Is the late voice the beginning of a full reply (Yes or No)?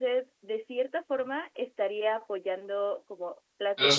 No